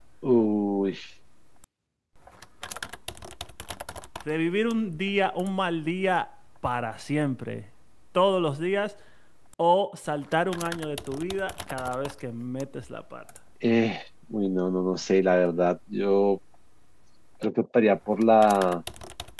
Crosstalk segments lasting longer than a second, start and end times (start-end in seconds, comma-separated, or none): none